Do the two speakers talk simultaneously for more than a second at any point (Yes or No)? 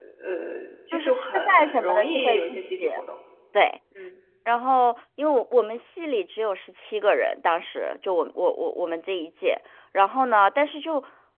Yes